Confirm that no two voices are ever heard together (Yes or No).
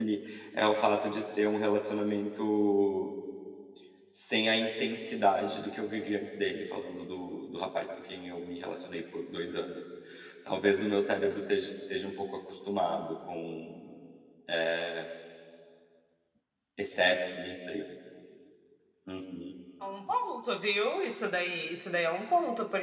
Yes